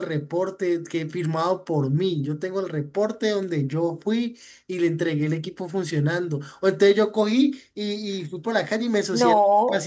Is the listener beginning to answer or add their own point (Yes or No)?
No